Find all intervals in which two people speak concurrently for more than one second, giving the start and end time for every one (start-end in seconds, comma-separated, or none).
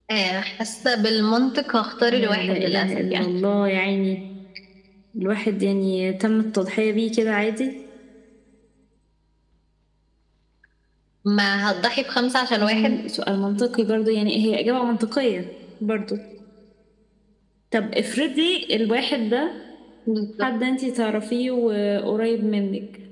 2.1-3.3